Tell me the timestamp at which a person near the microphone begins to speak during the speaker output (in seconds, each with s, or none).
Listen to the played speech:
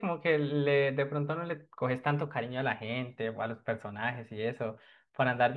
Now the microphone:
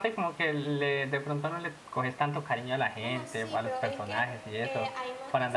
2.9 s